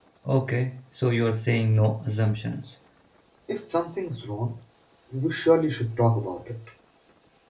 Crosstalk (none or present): none